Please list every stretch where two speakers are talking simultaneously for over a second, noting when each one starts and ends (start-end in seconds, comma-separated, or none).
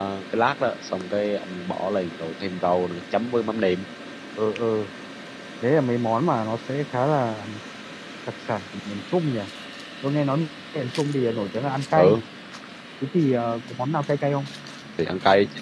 none